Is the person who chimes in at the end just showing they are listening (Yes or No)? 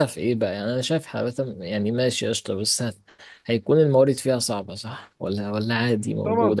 No